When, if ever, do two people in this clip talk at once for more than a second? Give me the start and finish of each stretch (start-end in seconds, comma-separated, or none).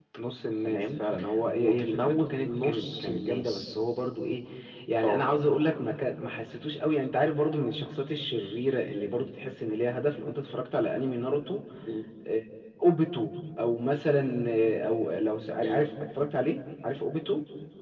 1.6-3.6